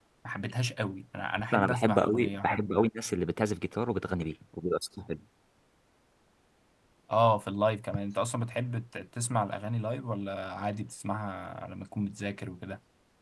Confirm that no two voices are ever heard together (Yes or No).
No